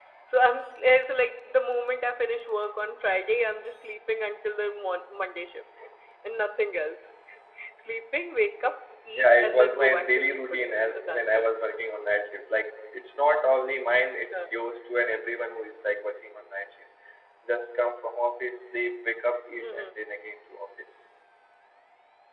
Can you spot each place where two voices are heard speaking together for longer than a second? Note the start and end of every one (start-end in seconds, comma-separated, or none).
9.2-11.5